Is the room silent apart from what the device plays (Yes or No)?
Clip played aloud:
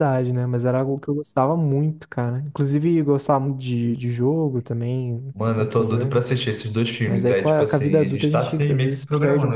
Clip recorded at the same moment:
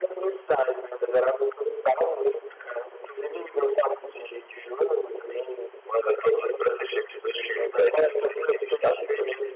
Yes